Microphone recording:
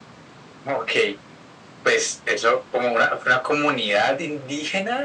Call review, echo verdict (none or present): present